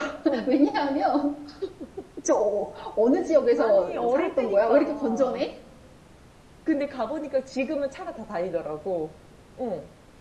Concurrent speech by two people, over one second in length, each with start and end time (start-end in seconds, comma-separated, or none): 3.6-5.4